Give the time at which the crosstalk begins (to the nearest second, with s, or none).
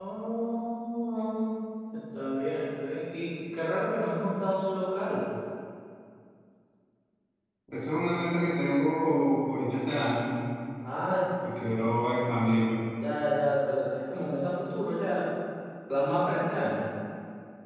none